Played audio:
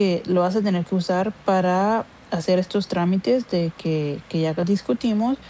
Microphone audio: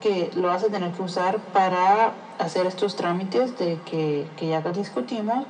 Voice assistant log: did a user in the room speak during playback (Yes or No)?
No